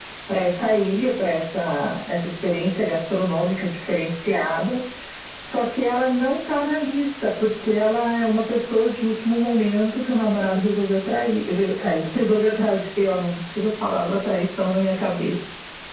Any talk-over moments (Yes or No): No